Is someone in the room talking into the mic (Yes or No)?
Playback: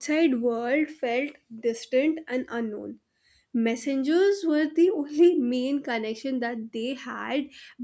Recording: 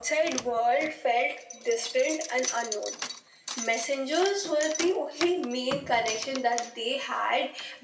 No